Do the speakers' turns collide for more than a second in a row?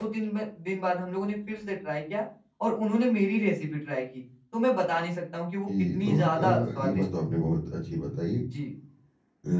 Yes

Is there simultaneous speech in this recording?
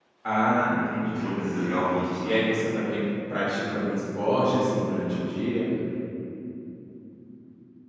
Yes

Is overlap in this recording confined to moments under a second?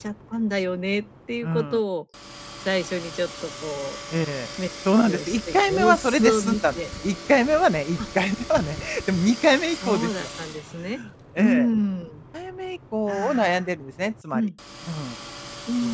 No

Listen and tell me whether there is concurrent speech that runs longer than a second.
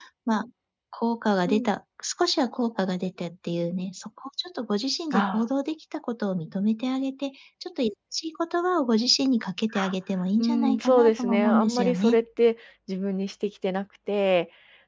Yes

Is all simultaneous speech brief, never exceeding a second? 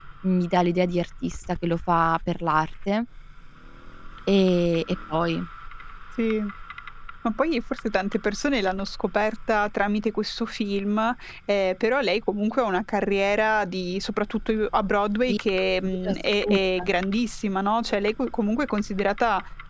Yes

